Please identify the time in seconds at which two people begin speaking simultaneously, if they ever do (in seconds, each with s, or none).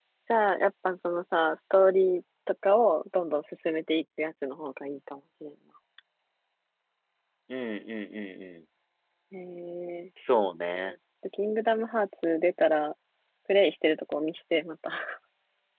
none